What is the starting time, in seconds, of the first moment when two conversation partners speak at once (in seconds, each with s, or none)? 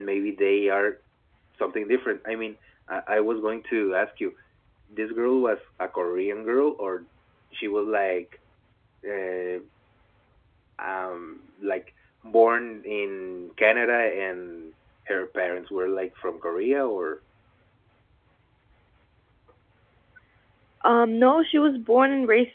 none